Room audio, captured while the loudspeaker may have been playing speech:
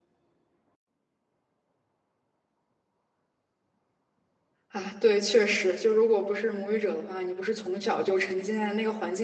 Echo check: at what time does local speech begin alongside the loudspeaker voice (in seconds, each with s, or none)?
4.7 s